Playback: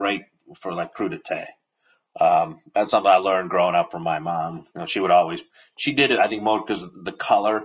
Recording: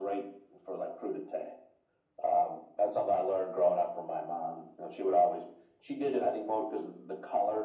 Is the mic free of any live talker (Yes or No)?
Yes